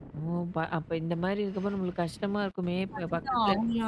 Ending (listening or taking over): taking over